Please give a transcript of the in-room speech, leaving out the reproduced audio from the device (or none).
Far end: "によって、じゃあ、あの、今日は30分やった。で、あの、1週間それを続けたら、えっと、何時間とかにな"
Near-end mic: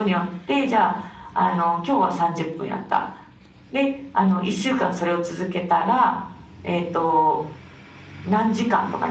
none